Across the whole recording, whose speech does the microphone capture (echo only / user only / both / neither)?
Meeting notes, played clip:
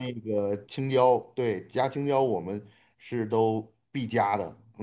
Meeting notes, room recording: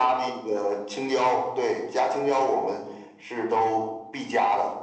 echo only